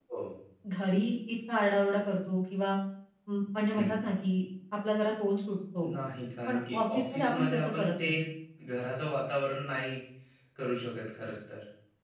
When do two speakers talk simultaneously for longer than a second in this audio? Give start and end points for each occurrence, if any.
6.5-8.1

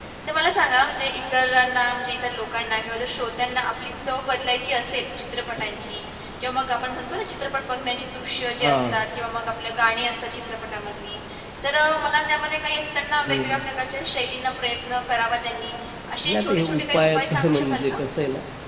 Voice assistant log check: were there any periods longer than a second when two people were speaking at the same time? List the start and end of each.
16.2-17.9

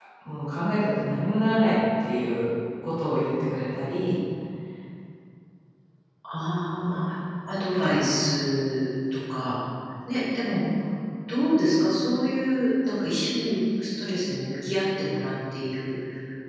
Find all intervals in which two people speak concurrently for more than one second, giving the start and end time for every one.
none

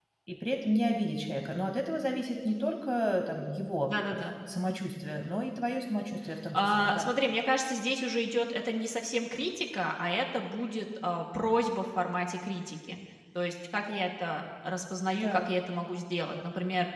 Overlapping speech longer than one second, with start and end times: none

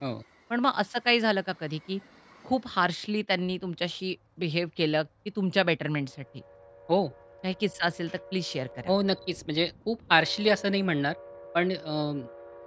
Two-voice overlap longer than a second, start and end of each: none

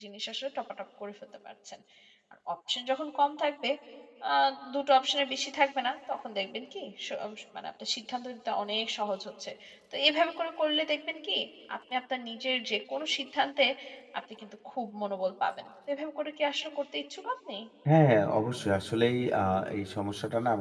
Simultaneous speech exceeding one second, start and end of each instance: none

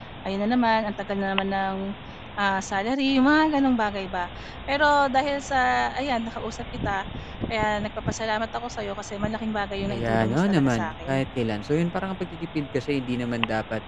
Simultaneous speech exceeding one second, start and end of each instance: 9.9-11.2

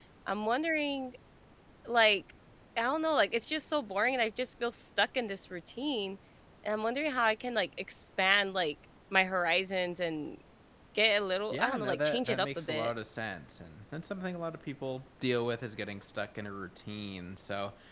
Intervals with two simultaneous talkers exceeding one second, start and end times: 11.5-12.9

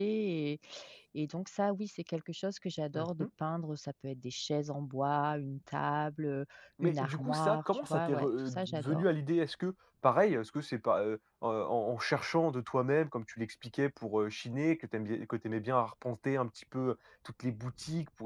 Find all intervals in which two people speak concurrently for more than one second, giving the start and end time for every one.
6.8-9.0

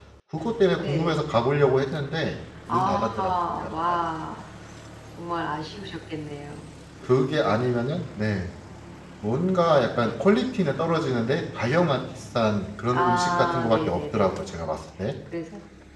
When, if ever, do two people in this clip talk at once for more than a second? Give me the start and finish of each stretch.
2.7-4.0, 12.9-14.6

